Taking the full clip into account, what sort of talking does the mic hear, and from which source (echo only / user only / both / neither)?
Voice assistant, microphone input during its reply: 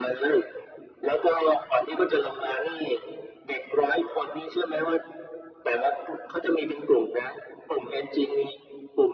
echo only